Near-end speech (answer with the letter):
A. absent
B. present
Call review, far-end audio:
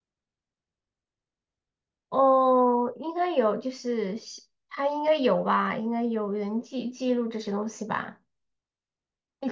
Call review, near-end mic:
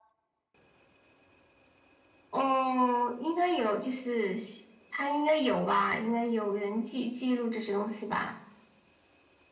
A